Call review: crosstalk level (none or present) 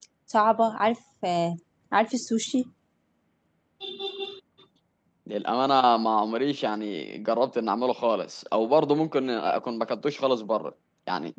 none